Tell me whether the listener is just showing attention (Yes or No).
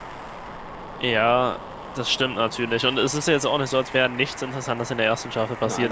Yes